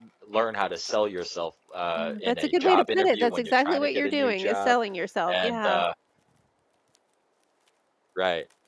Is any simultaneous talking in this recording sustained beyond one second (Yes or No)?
Yes